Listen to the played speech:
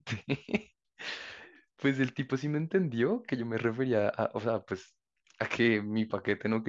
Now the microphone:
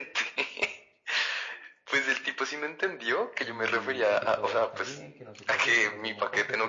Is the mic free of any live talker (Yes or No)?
No